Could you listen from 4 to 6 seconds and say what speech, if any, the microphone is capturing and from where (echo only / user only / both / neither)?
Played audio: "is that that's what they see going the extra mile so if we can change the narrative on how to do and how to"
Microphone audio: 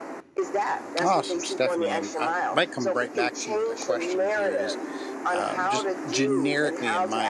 both